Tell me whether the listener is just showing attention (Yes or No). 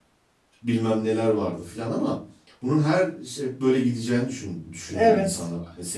Yes